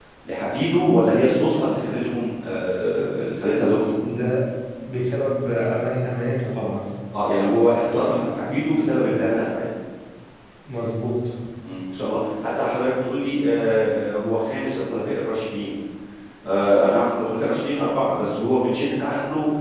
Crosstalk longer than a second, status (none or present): none